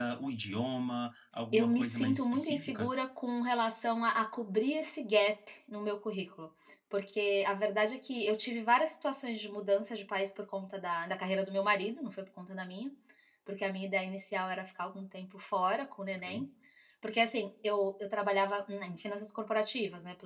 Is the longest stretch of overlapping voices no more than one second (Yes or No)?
No